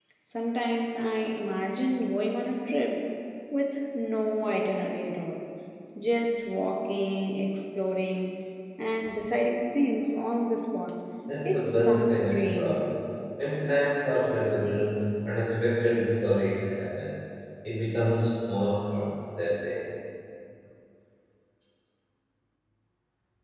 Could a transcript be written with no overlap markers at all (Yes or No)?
No